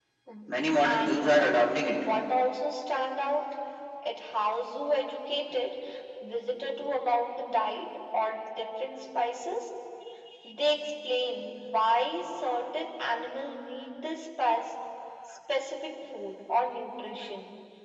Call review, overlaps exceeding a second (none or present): present